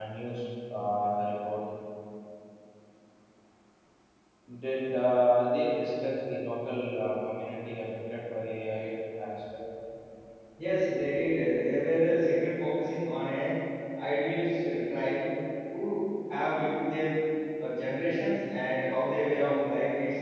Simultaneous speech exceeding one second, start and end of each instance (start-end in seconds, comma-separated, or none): none